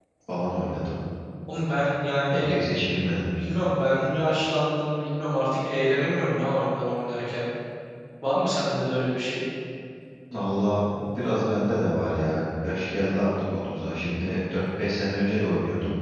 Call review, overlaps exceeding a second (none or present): none